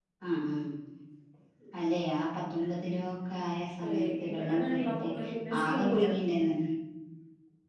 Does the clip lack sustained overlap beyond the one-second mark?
No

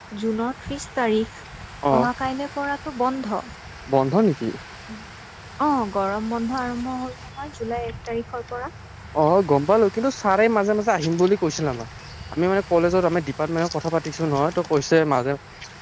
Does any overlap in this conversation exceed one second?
No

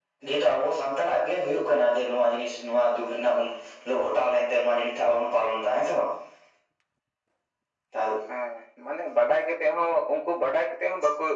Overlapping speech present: No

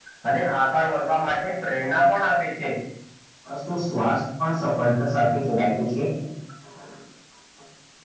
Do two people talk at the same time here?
No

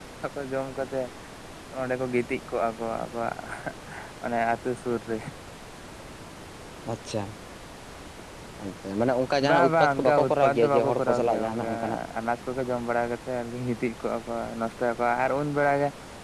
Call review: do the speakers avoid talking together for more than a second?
No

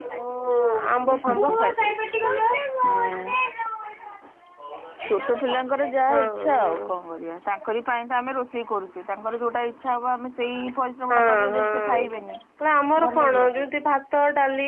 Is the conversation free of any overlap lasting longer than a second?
No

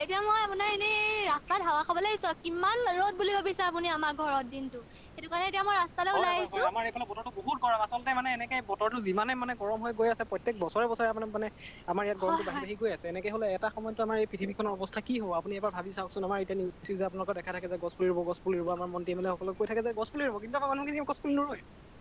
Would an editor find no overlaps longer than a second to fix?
Yes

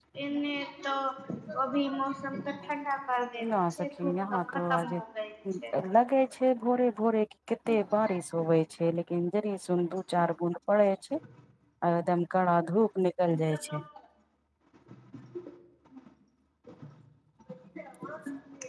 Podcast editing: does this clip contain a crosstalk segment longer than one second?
Yes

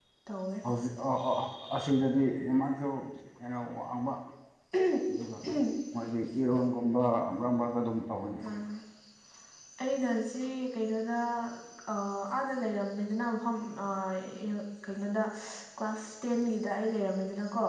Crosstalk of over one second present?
No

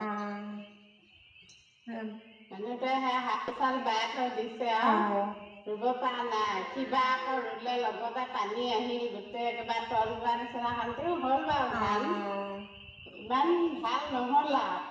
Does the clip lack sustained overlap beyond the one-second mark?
Yes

